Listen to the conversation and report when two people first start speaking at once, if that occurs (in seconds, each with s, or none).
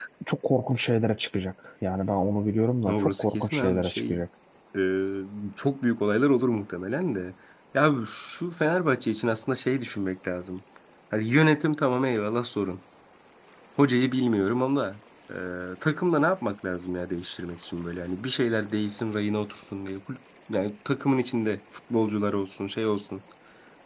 2.9 s